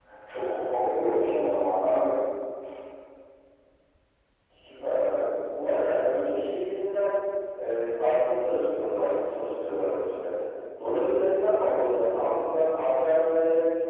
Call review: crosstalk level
none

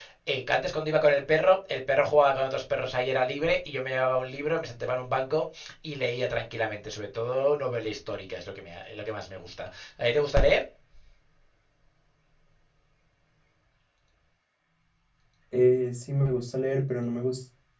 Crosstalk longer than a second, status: none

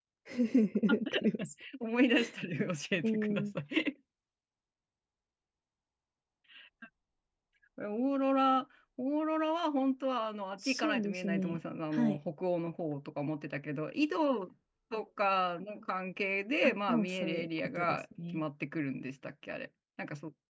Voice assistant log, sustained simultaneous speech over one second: present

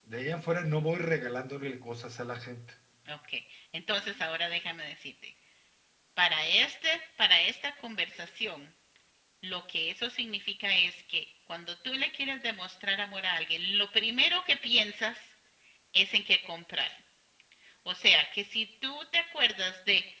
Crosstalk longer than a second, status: none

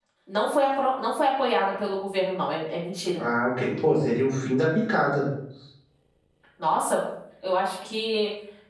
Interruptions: none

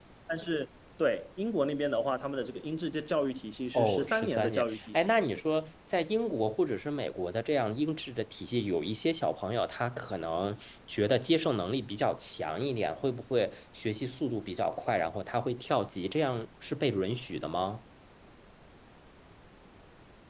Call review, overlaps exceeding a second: present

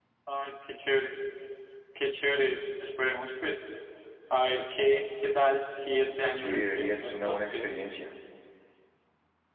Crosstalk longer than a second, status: present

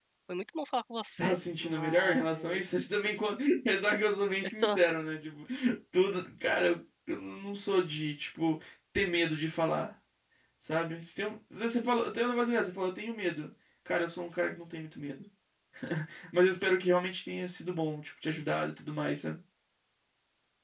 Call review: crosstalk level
present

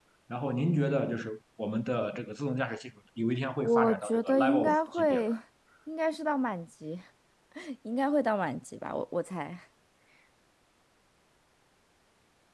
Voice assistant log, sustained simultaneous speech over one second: present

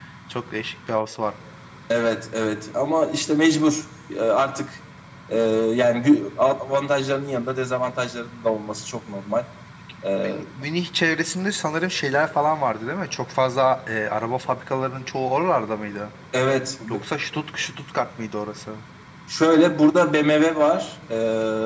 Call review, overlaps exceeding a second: none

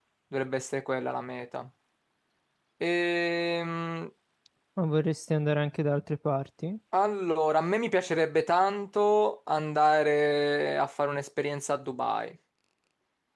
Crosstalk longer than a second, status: none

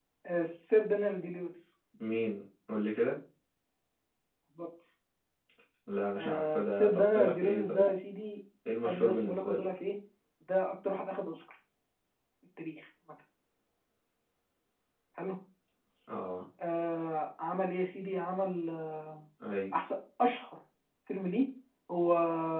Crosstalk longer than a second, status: present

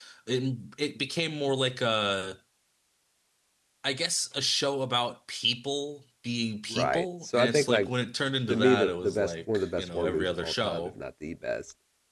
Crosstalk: present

